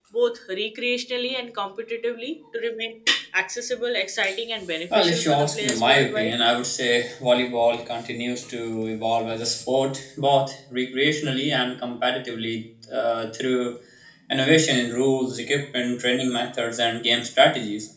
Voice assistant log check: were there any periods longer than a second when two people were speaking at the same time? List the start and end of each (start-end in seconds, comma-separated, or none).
5.0-6.3